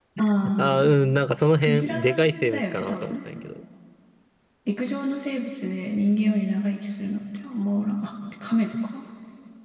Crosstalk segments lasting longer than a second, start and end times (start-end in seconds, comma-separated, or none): 1.6-3.2